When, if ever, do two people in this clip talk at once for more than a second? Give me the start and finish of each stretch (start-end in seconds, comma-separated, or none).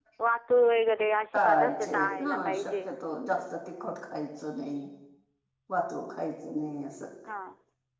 1.3-2.9